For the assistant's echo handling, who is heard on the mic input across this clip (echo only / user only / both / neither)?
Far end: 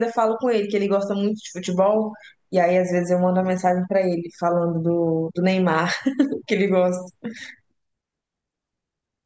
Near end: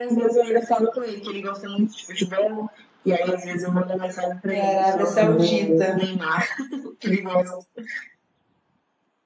both